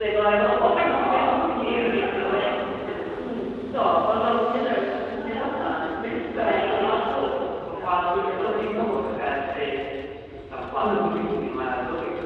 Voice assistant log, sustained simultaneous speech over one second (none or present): present